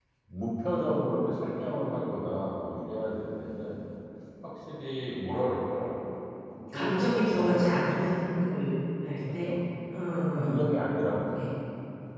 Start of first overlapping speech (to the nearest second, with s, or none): 7 s